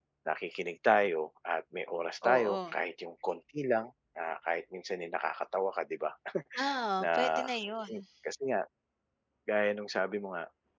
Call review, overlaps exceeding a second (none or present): none